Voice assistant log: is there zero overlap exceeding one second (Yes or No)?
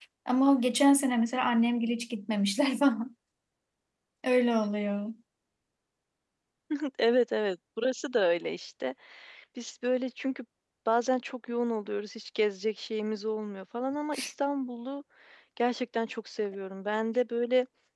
Yes